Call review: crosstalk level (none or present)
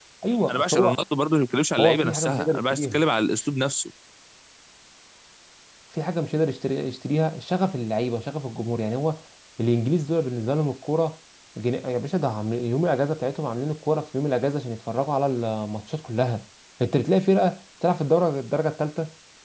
present